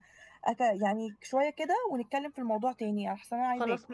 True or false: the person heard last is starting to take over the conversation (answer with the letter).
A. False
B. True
B